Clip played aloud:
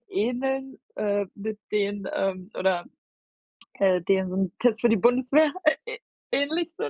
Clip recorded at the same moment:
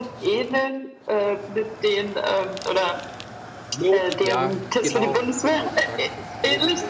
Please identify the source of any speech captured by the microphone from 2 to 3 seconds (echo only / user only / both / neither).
echo only